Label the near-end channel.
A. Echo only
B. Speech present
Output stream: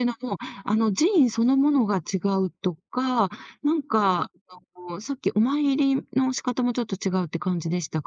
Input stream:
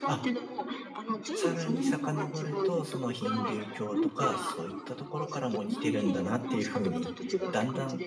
B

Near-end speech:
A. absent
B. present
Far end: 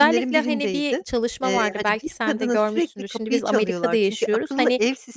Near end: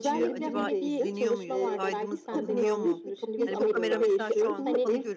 B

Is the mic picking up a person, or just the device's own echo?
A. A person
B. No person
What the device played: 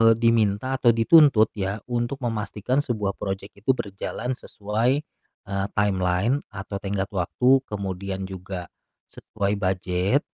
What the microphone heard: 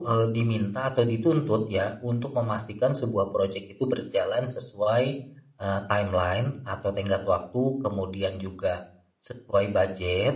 B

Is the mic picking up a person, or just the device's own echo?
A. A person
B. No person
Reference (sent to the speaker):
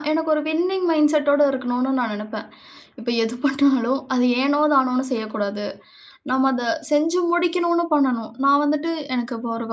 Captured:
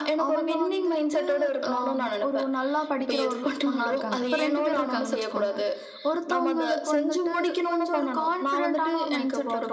A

